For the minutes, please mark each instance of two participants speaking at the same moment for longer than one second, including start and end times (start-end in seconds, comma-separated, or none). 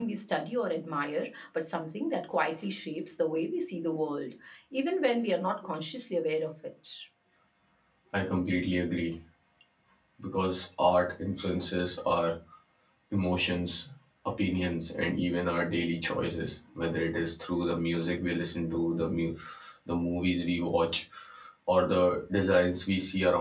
none